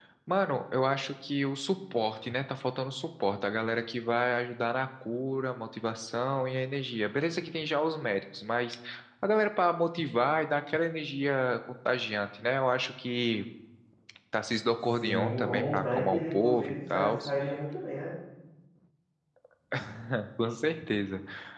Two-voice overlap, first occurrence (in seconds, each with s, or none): 14.9 s